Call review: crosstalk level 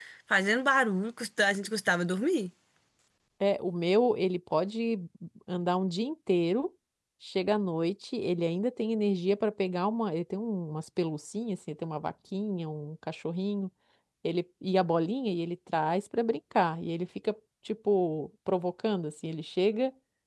none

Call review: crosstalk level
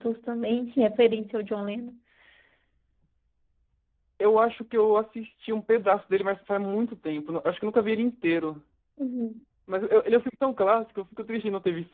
none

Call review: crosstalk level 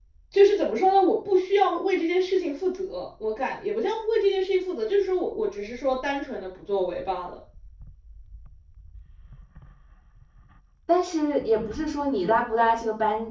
none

